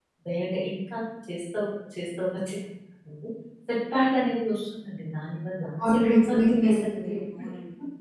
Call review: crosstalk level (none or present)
present